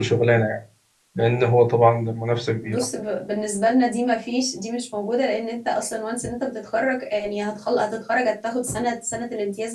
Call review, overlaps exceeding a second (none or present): none